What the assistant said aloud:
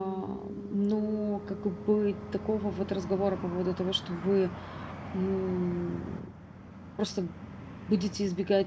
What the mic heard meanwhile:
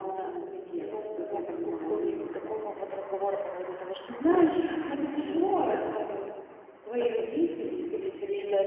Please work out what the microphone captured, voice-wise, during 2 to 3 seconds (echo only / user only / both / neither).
both